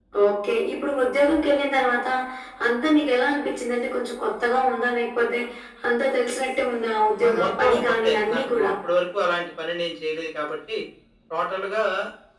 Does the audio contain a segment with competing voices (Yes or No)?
Yes